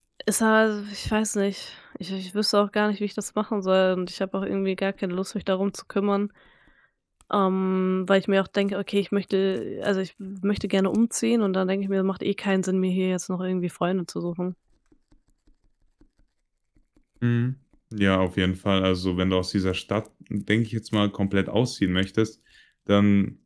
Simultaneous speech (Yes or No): No